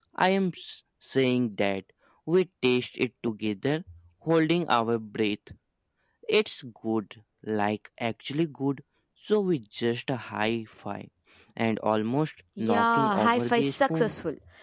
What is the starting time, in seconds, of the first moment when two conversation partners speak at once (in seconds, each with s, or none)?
12.6 s